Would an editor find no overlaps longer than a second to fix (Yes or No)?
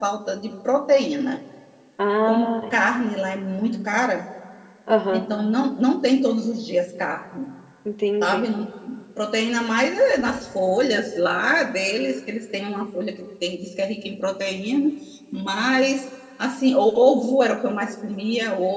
Yes